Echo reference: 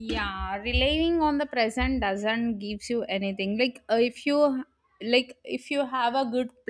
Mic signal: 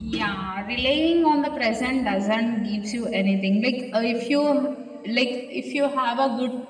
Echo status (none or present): present